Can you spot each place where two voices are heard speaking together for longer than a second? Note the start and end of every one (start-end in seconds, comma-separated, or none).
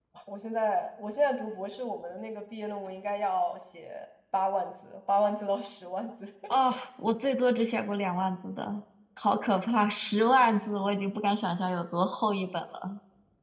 none